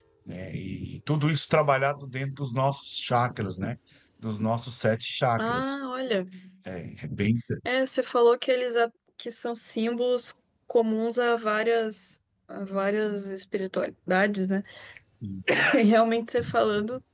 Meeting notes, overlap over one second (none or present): none